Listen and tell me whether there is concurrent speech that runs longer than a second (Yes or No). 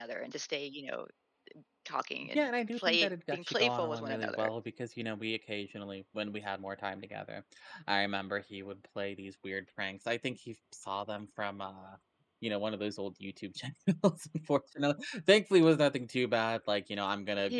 Yes